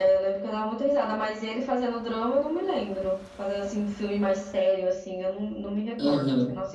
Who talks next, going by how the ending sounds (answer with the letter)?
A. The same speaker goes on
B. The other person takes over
B